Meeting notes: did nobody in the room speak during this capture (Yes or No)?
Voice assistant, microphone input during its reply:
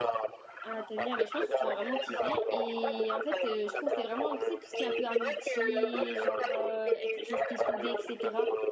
No